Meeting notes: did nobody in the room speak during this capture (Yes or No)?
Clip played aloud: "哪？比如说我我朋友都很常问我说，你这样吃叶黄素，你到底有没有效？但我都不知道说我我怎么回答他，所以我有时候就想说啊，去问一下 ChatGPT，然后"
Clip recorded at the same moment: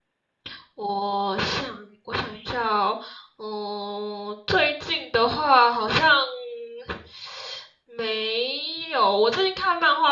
No